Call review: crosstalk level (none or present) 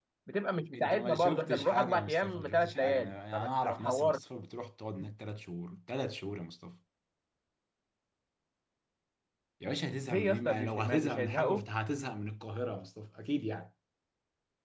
present